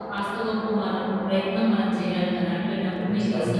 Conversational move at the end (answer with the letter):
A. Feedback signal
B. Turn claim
A